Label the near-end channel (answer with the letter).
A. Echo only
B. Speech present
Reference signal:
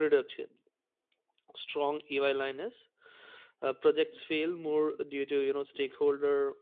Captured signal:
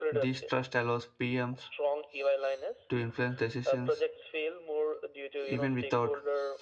B